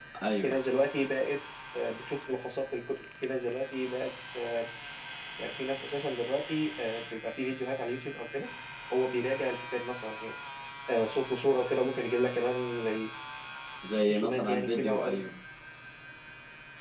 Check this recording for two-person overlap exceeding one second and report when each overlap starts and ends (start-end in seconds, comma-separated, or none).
14.1-15.3